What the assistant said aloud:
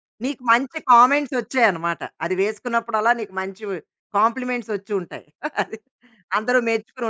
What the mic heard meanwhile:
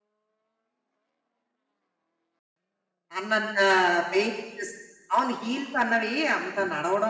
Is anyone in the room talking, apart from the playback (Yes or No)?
Yes